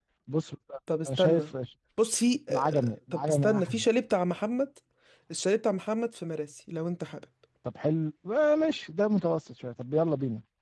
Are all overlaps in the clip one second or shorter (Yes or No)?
No